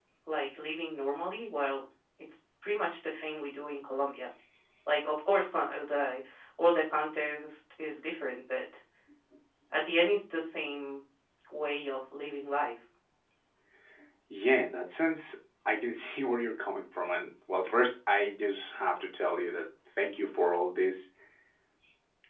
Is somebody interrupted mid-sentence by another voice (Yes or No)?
No